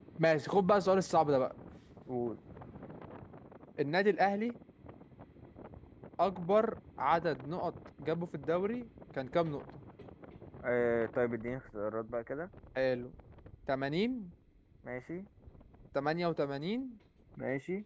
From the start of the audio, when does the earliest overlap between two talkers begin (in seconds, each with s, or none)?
none